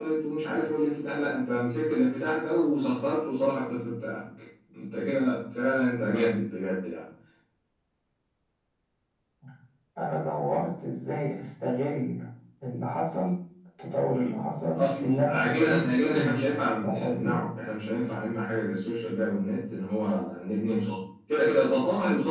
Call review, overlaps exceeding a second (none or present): present